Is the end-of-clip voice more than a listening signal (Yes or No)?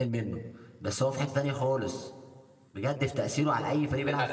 Yes